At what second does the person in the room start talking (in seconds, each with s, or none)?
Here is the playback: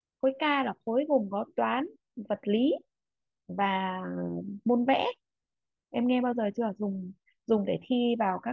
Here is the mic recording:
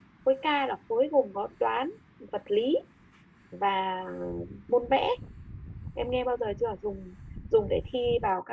none